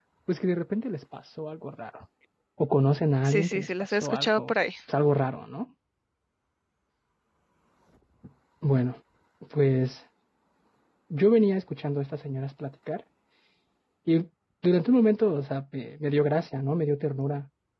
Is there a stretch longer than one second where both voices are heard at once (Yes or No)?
Yes